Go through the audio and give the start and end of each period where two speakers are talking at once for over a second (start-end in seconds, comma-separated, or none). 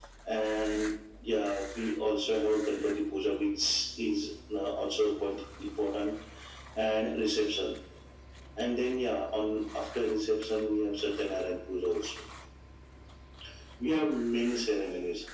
none